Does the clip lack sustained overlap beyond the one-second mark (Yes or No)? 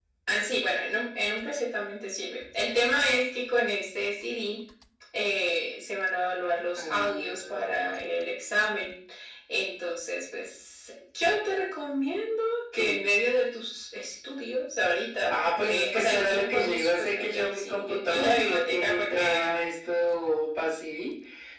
No